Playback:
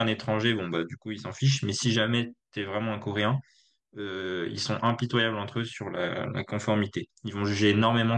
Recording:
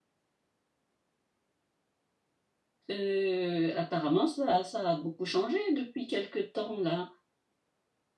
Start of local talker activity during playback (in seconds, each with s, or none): 2.9 s